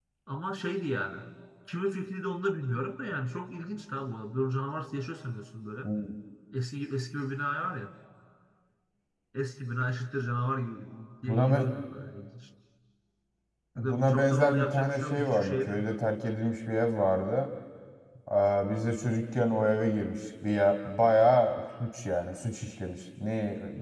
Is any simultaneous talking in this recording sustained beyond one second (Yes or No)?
Yes